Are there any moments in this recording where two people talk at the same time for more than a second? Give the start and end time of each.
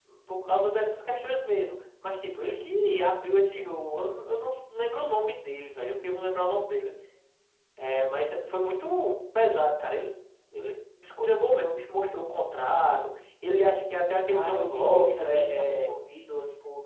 14.3-15.9

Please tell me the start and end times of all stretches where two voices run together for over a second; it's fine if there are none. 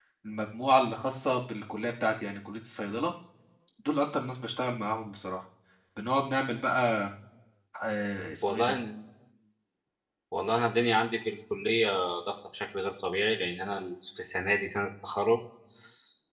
none

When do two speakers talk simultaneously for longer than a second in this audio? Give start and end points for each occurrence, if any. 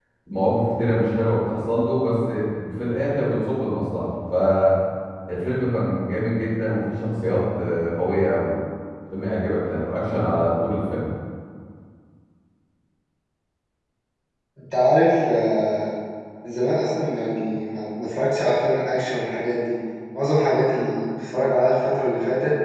none

